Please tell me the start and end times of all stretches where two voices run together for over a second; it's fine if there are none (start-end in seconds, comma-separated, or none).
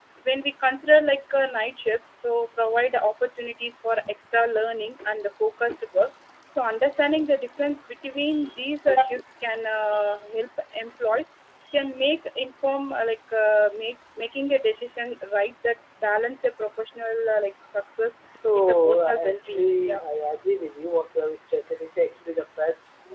18.5-20.0